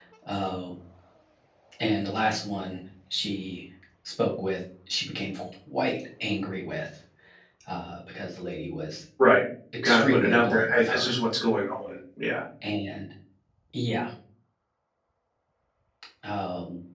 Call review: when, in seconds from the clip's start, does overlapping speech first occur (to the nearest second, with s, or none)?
10 s